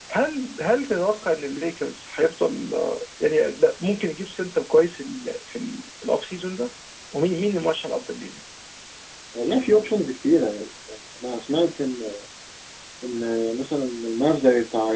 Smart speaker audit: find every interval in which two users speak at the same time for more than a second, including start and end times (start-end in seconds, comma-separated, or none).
none